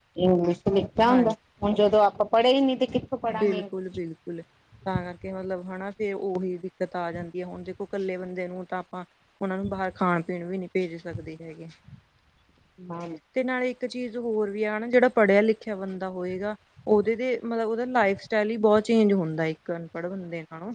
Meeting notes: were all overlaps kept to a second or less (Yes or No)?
Yes